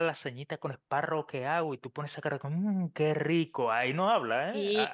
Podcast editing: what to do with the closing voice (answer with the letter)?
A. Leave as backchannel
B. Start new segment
B